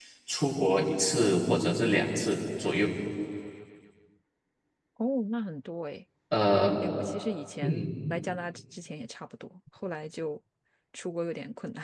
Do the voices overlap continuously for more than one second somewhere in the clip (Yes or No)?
No